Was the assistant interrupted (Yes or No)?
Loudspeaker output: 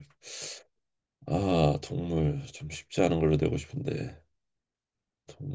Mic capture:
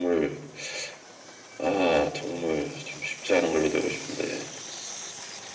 No